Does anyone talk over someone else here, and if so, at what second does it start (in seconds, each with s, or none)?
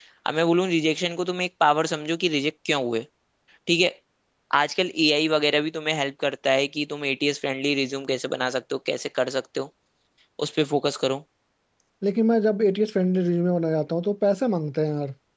none